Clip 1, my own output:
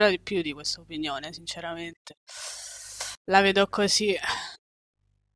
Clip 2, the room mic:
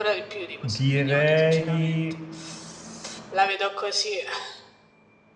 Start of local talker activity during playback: 0.6 s

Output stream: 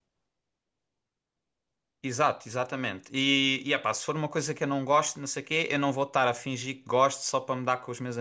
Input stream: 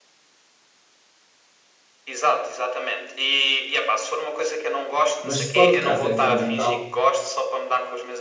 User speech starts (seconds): 5.2 s

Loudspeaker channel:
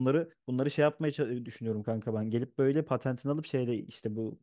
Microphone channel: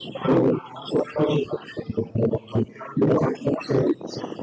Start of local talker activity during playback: none

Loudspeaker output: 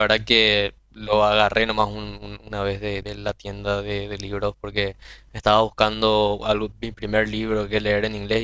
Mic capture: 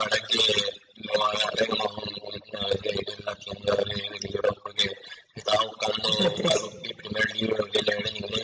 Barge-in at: 6.0 s

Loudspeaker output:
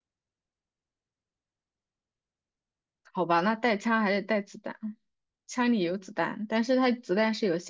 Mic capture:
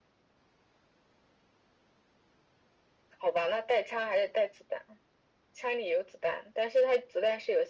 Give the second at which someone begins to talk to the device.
none

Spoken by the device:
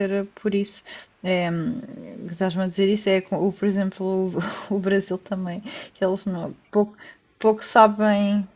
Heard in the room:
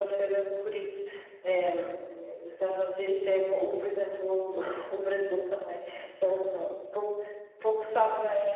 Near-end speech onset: none

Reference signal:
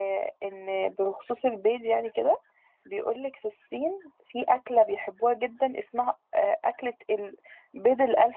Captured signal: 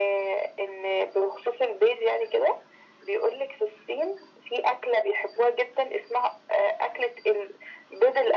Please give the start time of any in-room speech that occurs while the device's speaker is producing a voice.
none

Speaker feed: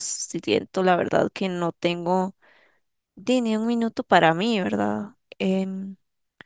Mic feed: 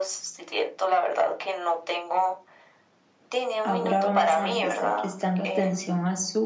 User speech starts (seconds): 3.6 s

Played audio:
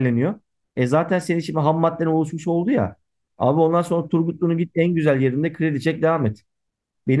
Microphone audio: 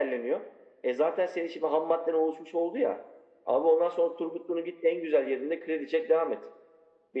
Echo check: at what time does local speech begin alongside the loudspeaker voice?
none

